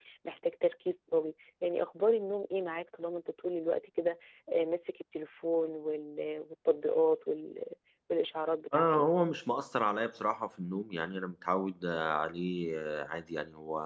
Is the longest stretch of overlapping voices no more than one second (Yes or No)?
Yes